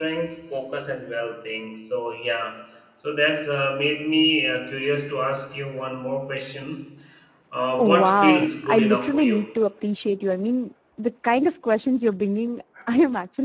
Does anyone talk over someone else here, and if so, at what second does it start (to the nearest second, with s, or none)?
8 s